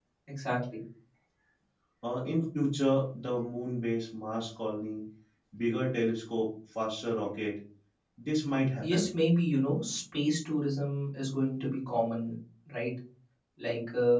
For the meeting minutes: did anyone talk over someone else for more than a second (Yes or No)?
No